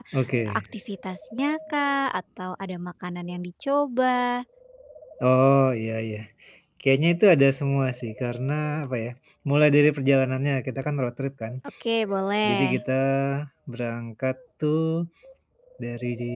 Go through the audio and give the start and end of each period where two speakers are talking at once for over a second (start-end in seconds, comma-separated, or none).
none